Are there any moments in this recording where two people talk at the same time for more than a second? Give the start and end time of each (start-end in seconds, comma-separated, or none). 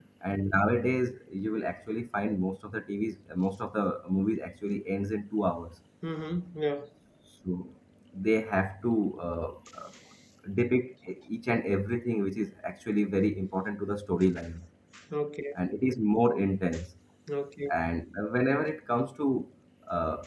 none